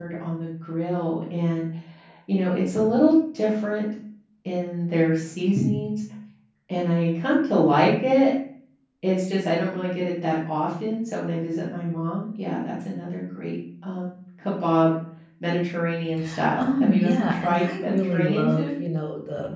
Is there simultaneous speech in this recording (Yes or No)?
Yes